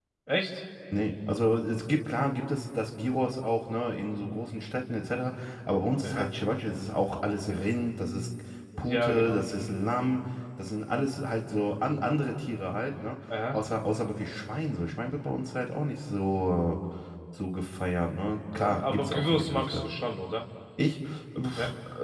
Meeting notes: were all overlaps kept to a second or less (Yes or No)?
No